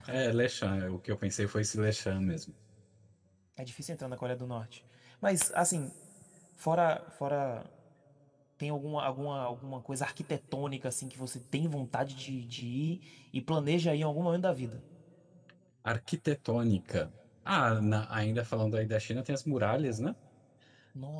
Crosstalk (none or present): none